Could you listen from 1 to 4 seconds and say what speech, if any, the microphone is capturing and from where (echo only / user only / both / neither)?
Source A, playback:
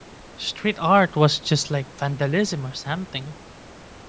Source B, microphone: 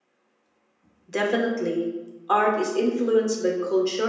user only